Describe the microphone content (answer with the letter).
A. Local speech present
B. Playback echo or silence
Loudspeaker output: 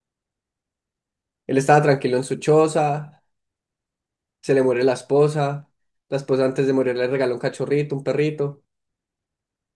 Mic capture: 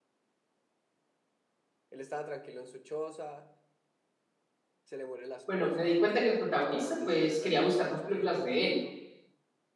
A